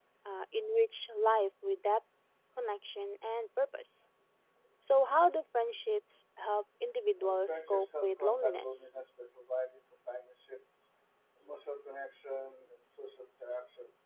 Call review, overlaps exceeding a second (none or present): present